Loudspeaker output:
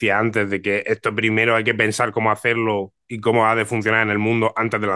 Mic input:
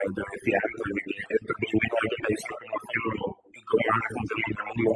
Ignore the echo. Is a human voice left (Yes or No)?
No